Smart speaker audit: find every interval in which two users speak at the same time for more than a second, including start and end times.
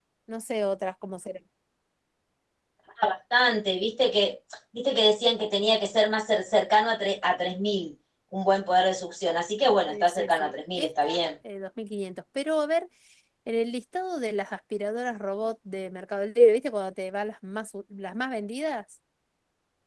9.9-11.1

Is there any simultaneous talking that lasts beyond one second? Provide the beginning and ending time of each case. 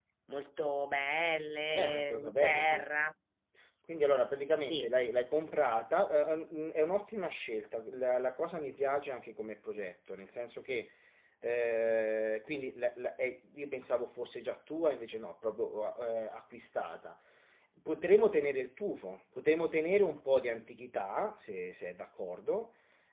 1.8-3.1

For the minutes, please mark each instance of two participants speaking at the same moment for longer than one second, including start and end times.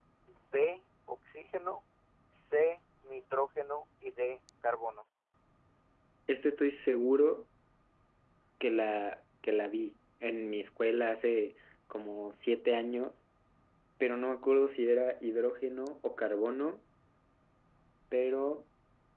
none

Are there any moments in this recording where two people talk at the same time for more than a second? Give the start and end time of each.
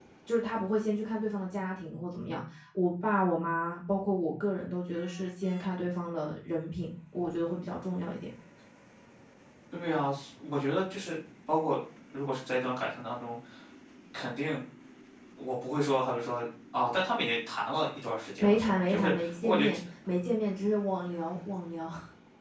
18.4-19.8

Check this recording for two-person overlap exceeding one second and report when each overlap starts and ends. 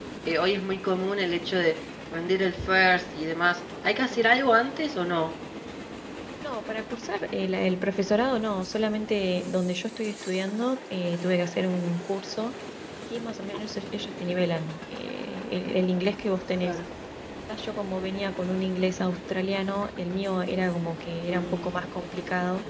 none

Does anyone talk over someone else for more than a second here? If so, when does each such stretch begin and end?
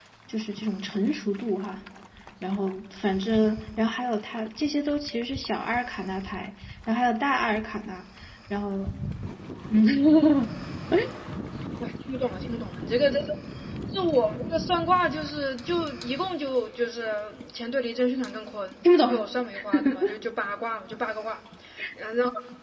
none

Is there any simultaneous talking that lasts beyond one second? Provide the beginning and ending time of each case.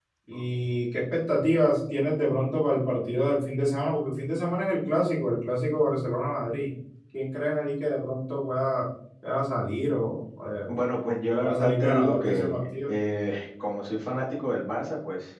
11.4-12.9

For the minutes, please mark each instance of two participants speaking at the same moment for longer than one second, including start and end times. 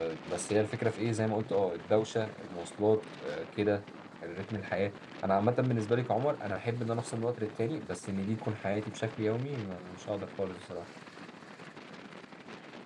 none

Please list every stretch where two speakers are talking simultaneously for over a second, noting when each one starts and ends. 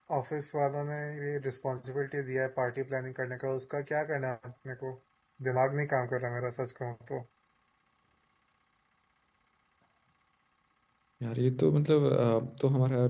none

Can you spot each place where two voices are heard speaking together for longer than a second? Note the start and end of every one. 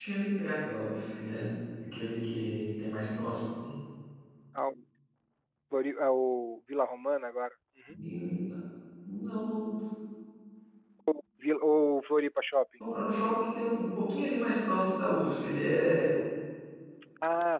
none

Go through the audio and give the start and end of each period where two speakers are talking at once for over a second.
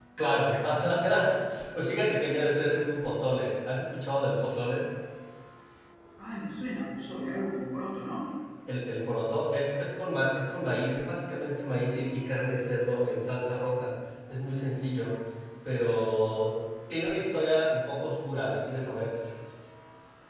none

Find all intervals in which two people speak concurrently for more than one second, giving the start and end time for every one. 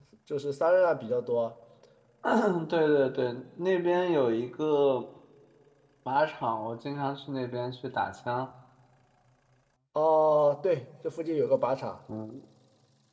none

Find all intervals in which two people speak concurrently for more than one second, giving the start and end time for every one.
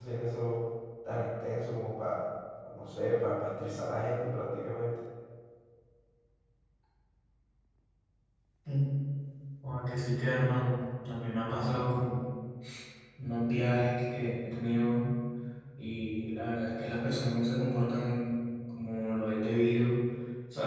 none

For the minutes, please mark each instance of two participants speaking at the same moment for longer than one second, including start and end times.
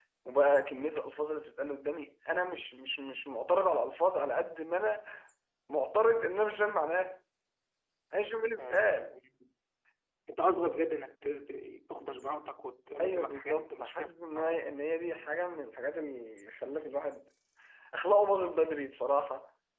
13.0-14.6

